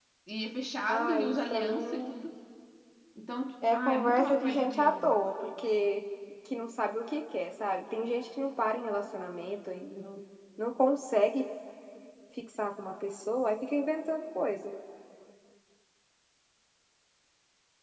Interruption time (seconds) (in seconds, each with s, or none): 0.9 s